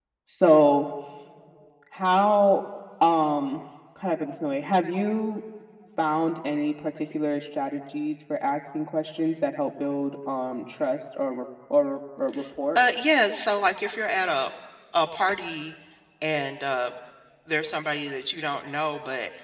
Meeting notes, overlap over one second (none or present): none